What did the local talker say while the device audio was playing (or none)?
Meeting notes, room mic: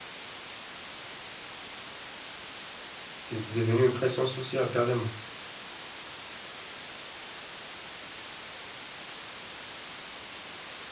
c'est devenu une pression sociale carrément.